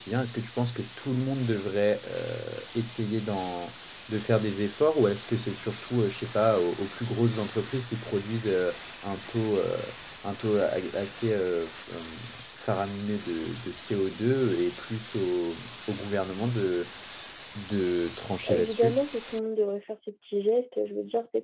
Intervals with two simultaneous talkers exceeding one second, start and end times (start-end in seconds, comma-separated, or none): none